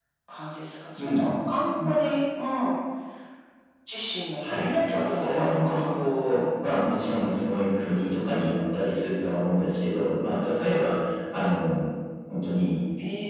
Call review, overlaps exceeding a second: present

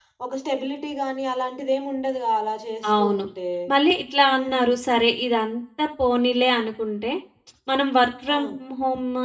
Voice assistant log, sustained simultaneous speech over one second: none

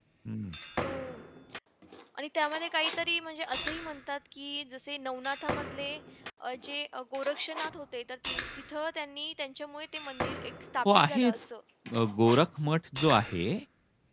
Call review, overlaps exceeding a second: none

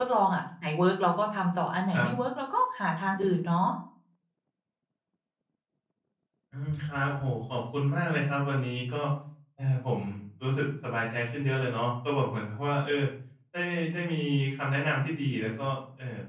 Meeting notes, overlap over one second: none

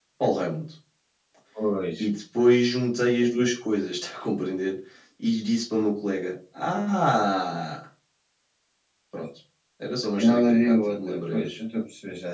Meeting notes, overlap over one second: present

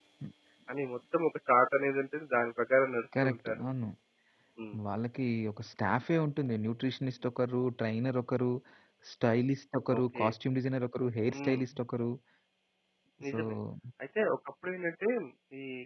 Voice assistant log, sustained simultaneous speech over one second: none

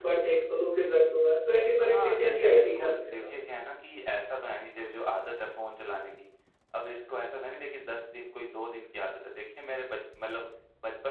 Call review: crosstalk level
present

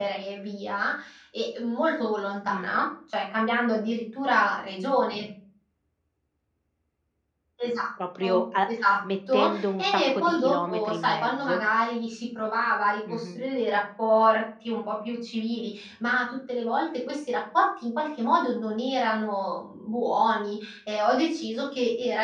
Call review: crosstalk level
present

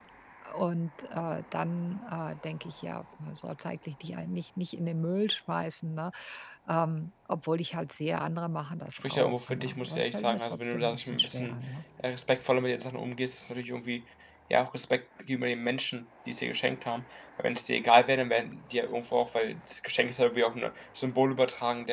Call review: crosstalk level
present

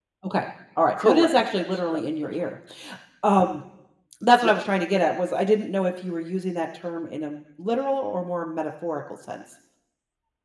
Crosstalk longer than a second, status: present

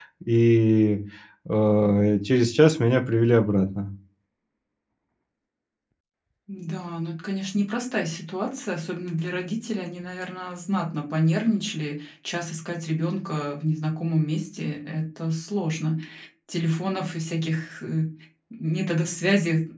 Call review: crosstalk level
none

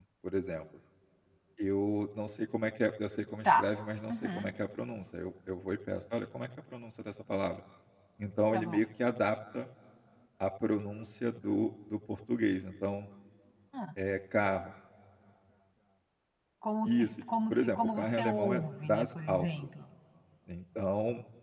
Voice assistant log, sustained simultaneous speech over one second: present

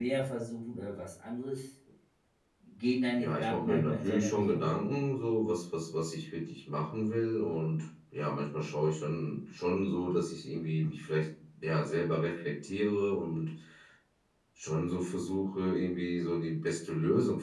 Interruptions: present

